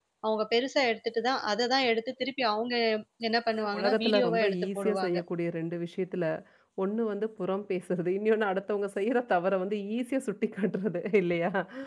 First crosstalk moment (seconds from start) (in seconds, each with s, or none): 3.6 s